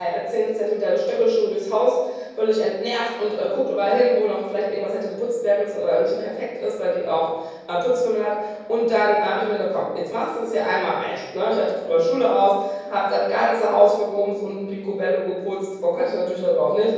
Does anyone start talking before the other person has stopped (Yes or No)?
No